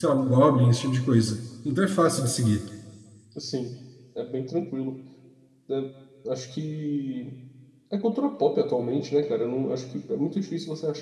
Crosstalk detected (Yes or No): No